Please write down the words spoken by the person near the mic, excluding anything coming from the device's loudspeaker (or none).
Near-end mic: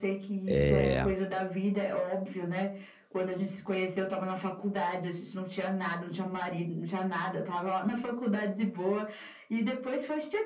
eh